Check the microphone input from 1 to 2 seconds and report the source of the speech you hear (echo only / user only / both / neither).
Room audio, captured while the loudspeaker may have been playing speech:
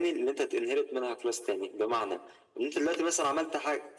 echo only